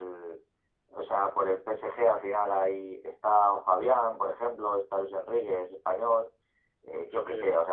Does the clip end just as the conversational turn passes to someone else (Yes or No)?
No